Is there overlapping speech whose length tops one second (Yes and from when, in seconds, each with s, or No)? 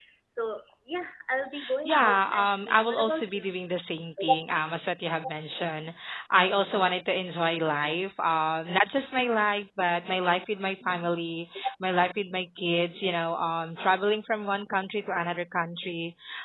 Yes, from 1.8 s